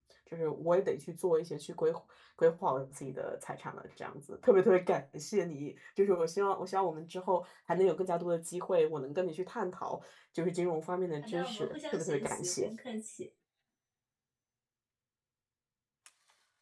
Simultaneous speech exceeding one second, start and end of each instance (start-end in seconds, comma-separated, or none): 11.2-12.7